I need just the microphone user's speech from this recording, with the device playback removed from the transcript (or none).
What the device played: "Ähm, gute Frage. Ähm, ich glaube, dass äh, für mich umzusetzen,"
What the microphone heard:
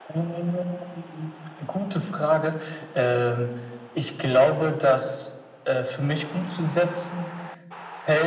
none